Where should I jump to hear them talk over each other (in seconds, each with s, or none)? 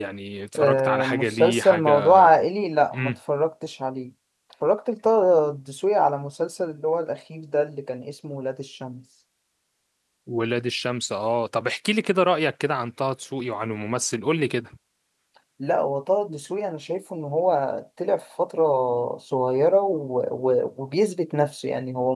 0.6 s